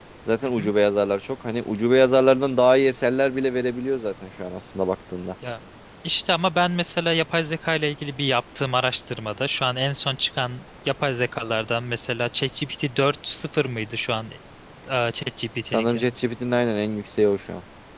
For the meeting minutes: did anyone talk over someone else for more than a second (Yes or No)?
No